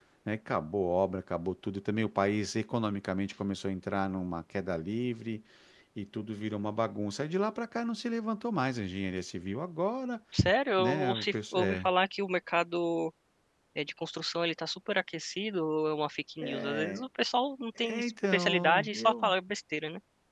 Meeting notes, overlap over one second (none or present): present